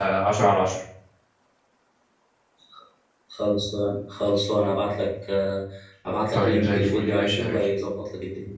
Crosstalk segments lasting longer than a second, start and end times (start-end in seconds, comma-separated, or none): 6.3-7.6